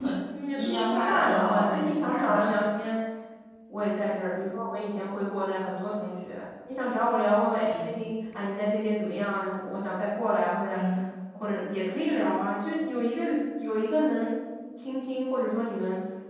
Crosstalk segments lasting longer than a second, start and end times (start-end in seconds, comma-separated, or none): 0.6-2.5